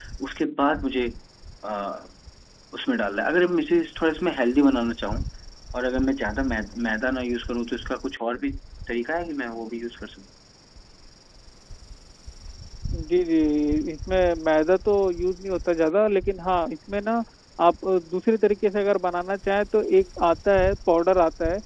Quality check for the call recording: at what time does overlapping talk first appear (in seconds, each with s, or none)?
none